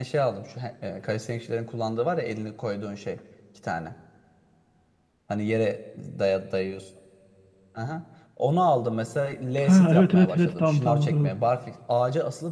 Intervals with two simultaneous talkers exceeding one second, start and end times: 9.6-11.3

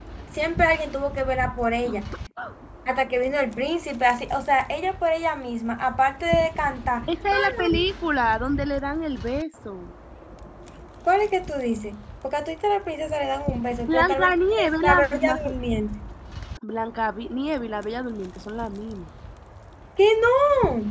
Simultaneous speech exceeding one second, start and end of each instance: 13.9-15.4

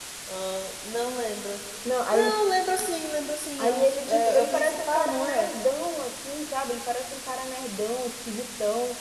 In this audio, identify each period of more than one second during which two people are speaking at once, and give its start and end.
3.6-5.5

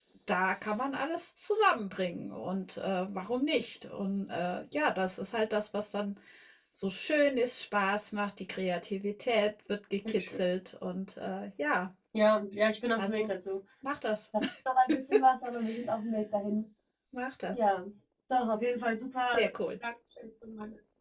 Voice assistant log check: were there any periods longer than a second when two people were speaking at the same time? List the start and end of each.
none

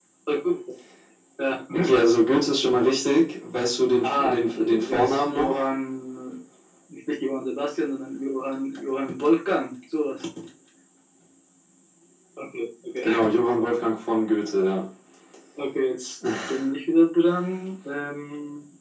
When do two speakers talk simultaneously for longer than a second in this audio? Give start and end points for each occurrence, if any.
4.0-5.5

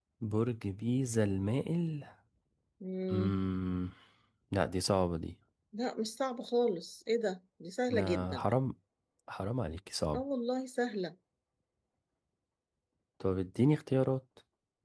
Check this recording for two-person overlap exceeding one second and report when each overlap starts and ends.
none

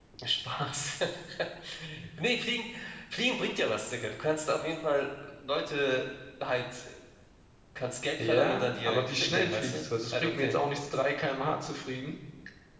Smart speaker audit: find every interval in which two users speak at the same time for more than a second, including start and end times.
8.2-10.6

